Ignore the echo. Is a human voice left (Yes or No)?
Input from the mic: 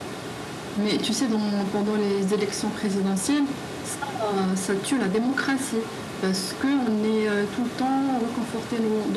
No